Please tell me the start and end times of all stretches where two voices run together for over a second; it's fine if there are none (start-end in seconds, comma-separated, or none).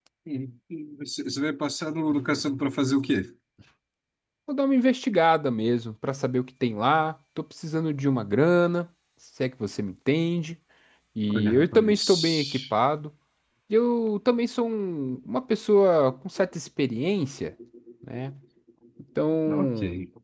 11.3-12.6